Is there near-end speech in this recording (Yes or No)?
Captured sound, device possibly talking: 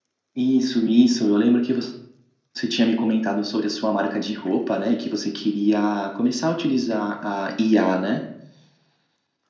Yes